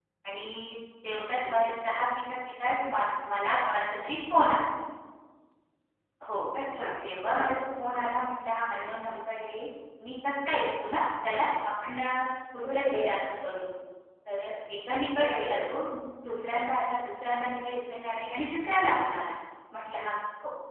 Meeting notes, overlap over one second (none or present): none